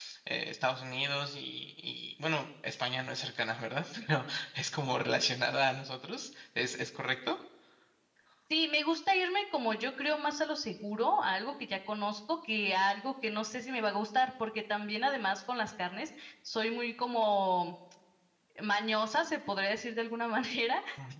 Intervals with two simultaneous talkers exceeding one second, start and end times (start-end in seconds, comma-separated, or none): none